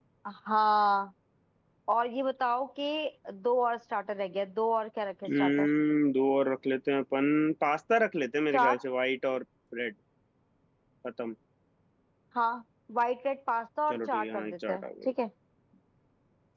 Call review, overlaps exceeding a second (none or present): present